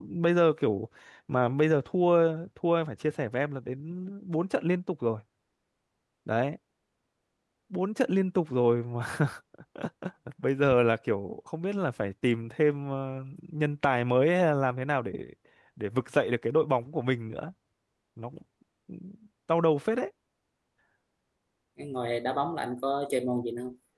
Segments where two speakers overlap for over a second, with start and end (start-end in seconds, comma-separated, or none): none